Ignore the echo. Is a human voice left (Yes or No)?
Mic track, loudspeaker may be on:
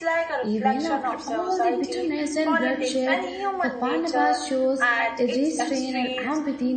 Yes